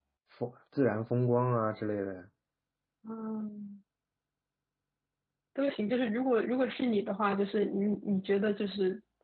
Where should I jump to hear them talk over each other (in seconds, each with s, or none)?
none